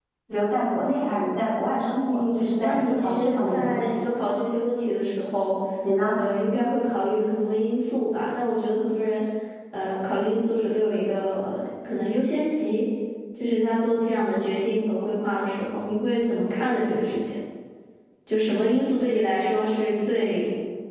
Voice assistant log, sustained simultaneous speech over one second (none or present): present